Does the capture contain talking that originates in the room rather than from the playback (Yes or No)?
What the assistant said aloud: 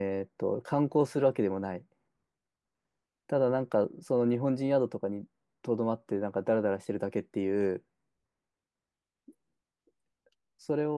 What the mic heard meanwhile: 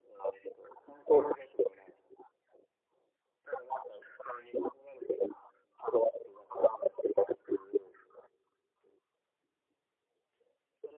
No